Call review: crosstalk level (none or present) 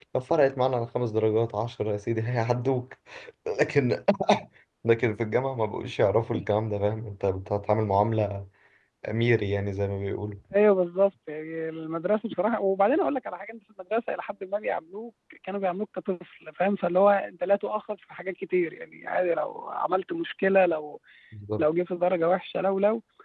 none